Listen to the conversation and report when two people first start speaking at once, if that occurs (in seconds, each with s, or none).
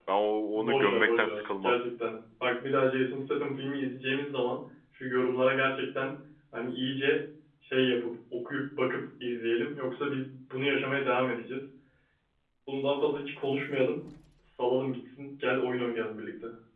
0.5 s